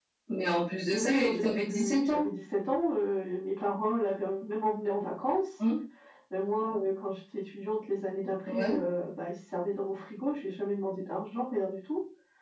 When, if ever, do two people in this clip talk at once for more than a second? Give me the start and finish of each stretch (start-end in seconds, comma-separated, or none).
0.9-2.2